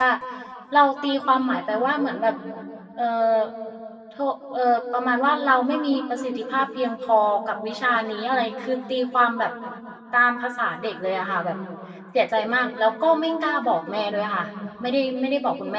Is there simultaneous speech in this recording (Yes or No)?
No